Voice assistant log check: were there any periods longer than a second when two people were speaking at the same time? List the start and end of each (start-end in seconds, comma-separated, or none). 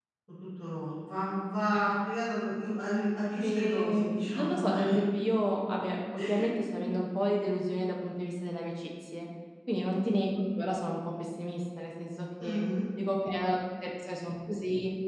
3.4-5.0